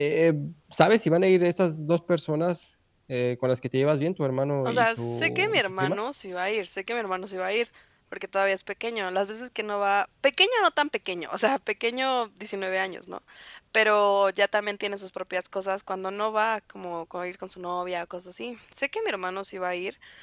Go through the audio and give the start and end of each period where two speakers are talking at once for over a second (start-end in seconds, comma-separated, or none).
4.6-6.0